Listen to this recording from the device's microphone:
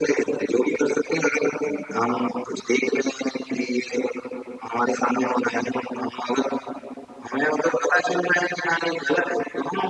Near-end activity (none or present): none